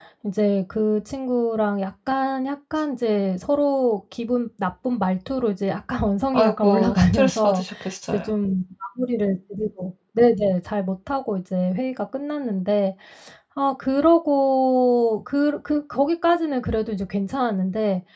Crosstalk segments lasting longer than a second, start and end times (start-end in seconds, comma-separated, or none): 6.3-7.6